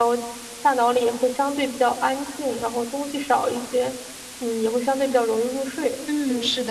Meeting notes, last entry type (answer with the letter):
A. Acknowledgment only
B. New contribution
B